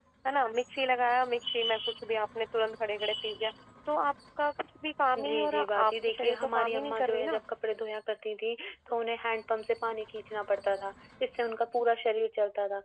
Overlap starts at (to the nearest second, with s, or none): 5 s